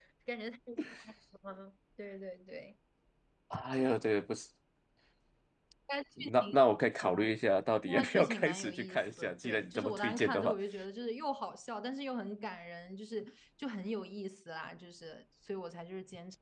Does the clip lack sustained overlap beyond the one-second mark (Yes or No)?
No